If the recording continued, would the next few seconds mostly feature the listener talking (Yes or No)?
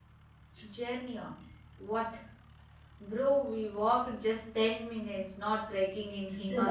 Yes